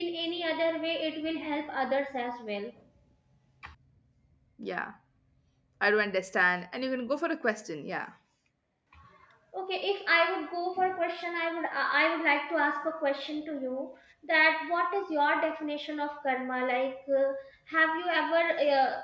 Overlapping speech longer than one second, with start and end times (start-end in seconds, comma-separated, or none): none